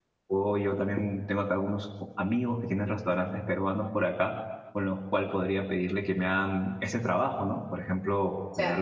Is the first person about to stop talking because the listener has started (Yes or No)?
Yes